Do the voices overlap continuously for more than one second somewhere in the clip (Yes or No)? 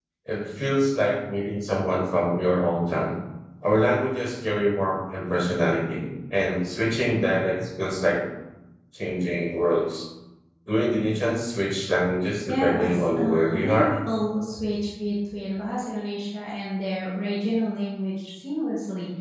Yes